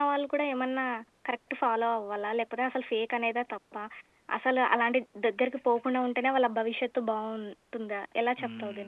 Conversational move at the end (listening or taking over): taking over